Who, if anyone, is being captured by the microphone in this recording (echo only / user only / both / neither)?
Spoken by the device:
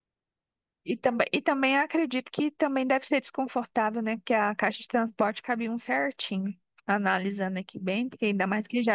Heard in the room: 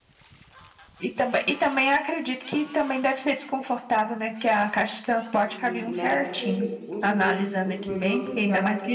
both